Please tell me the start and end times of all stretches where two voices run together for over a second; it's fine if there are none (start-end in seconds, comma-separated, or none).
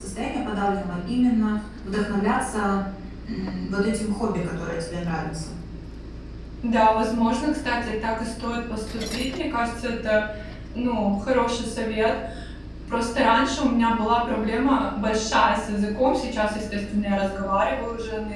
none